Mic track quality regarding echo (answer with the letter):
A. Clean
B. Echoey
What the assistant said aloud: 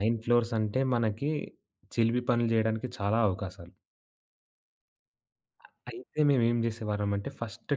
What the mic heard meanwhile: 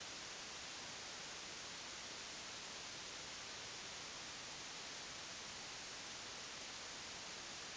A